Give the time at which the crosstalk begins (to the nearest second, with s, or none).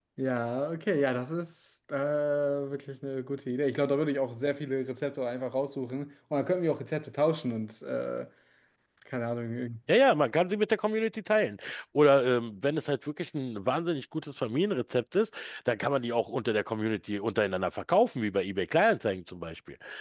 none